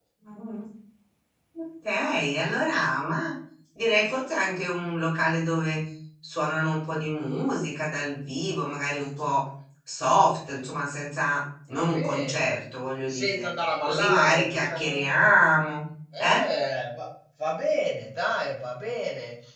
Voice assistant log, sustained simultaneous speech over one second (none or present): present